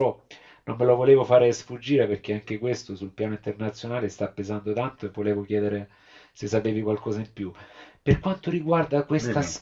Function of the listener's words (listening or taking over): listening